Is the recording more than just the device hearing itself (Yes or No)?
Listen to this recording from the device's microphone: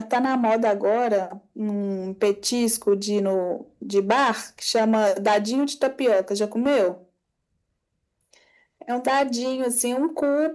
No